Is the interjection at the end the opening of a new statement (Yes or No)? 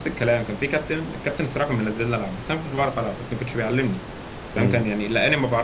No